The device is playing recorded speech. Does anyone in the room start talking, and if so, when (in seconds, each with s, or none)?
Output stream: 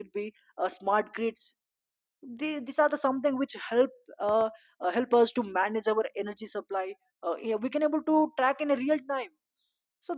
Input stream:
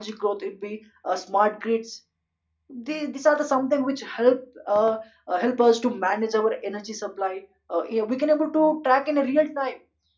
none